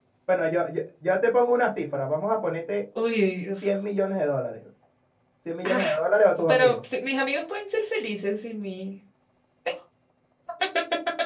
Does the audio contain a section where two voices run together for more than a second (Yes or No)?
No